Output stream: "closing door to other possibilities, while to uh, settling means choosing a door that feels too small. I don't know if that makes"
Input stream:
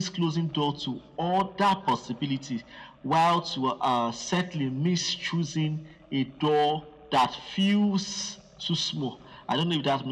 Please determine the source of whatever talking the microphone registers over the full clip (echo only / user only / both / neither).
echo only